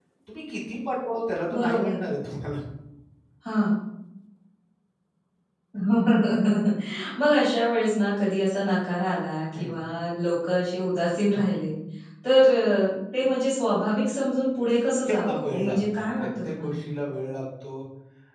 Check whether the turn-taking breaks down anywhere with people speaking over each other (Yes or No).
Yes